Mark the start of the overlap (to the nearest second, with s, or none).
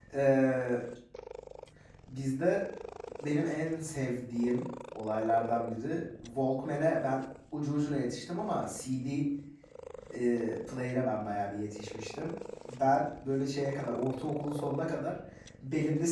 none